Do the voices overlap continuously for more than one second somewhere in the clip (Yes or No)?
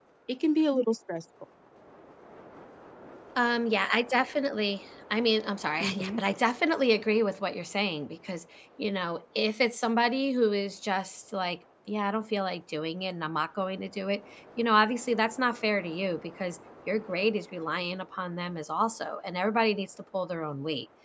No